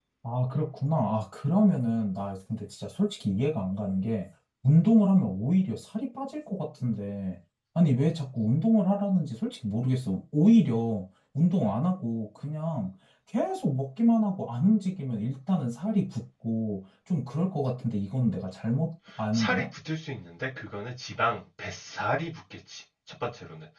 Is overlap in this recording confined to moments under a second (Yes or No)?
Yes